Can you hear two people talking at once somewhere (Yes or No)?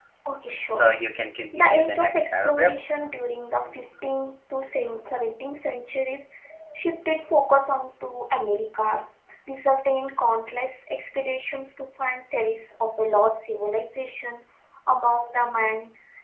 Yes